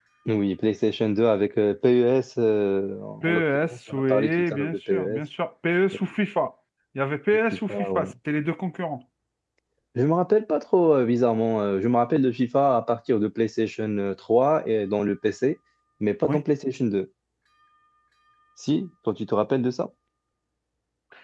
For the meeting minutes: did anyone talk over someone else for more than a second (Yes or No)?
Yes